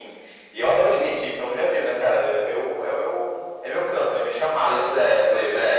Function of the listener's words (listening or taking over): taking over